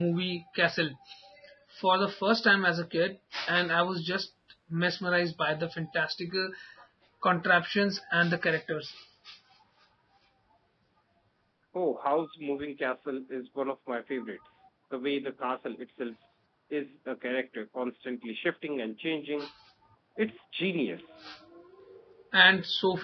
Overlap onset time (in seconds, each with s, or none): none